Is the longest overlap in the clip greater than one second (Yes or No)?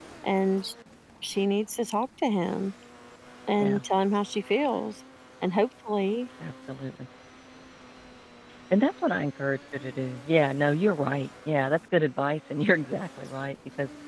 No